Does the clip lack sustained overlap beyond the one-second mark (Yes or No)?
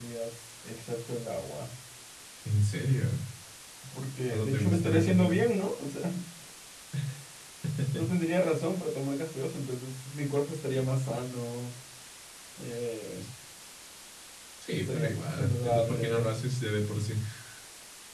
No